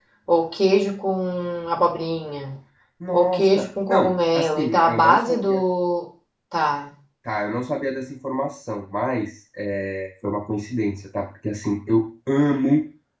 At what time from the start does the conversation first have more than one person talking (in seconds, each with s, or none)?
3.1 s